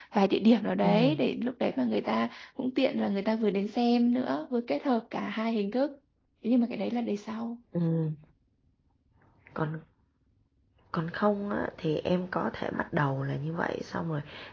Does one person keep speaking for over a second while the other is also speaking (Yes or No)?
No